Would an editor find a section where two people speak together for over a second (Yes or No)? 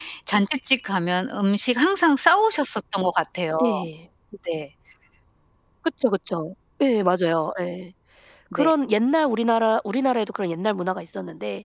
No